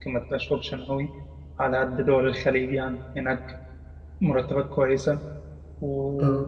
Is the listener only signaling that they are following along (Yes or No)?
Yes